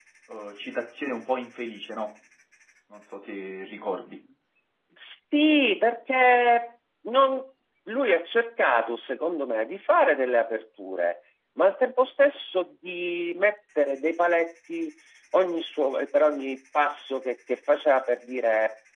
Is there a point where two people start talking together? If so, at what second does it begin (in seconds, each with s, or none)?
none